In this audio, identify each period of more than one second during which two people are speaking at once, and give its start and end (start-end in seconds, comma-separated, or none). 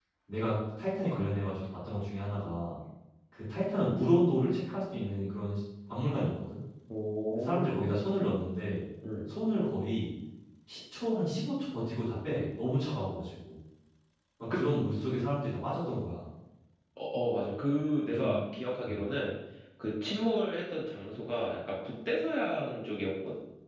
none